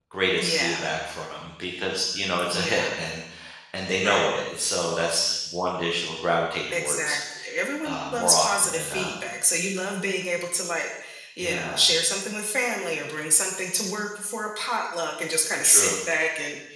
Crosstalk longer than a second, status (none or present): present